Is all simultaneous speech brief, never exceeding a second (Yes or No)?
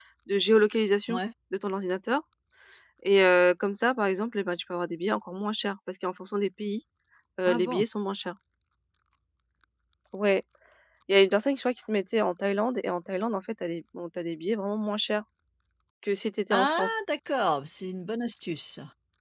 Yes